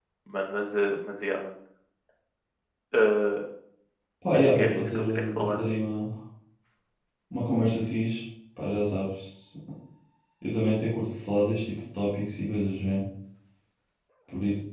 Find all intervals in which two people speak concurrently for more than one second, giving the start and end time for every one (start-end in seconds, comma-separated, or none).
4.3-5.6